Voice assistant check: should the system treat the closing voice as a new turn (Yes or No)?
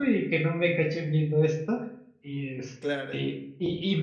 No